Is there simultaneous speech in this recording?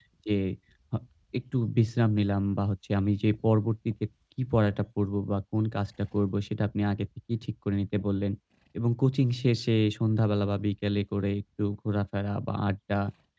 No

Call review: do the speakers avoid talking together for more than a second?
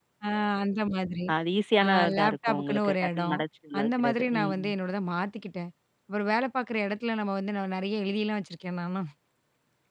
No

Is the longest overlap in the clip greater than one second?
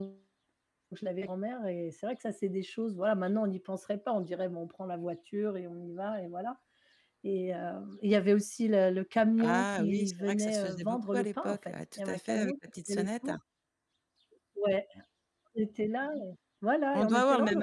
Yes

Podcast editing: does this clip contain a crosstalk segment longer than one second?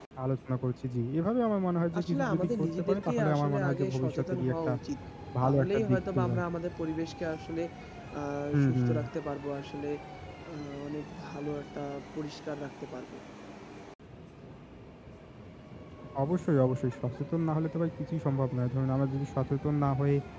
Yes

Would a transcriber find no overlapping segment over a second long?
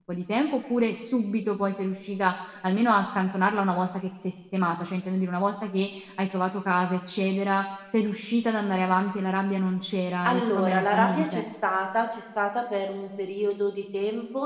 No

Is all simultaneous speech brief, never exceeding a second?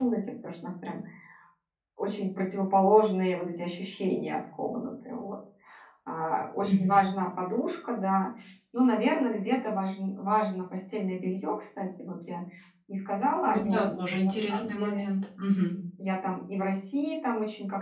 No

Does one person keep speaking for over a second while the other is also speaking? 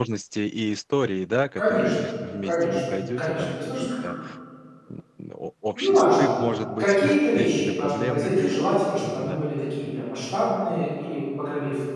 Yes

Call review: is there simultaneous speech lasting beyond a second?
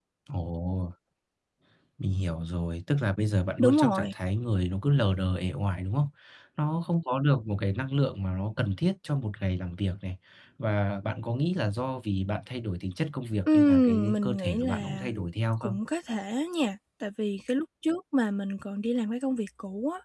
Yes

